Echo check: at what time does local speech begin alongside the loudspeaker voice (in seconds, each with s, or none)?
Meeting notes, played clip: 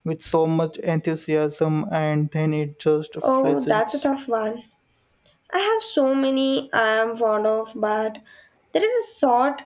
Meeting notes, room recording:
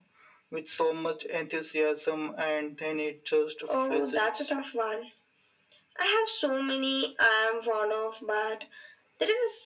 none